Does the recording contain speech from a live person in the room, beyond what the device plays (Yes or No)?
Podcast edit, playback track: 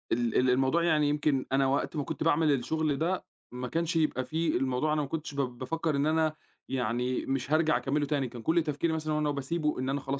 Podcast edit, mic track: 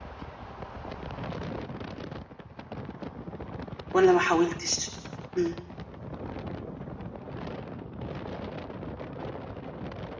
Yes